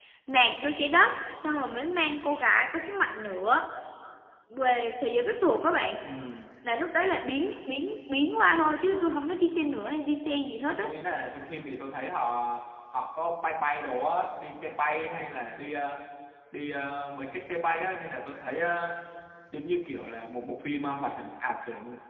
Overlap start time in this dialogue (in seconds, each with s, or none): none